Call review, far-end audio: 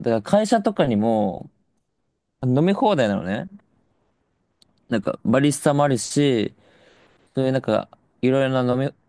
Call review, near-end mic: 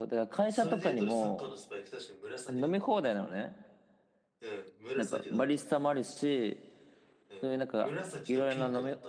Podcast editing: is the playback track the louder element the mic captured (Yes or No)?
Yes